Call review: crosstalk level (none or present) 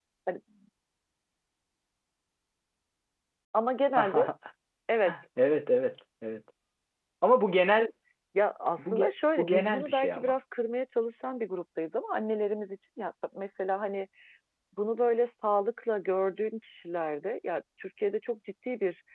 present